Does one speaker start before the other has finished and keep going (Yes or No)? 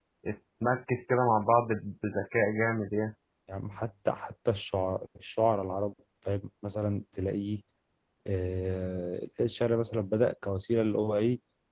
No